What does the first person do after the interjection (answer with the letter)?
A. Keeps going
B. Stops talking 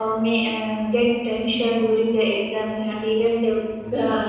A